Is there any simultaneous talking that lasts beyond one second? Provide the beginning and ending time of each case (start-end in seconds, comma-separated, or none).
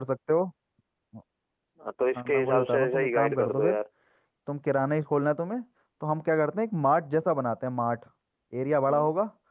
2.1-3.7